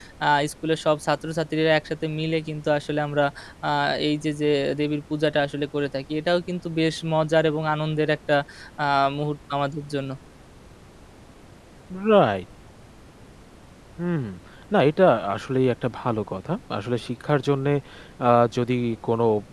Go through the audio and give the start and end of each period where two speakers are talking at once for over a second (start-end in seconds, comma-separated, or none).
none